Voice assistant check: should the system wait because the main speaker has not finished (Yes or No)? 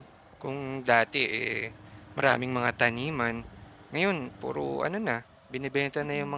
Yes